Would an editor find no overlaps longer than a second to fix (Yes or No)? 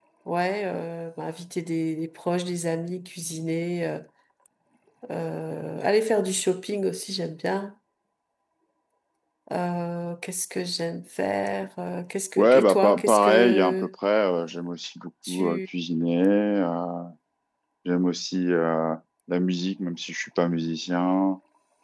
No